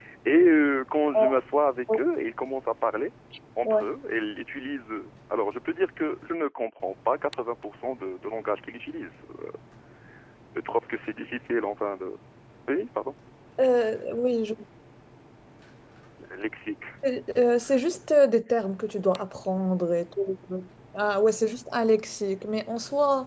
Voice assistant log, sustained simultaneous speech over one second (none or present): none